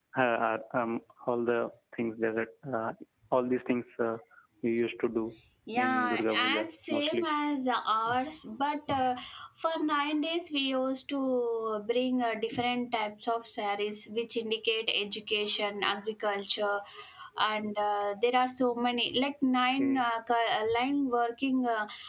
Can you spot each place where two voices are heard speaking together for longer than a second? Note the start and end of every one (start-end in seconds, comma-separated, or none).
5.8-7.2